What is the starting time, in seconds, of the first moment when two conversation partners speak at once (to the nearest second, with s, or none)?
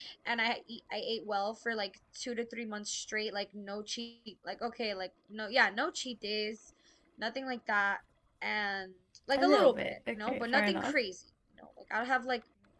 9 s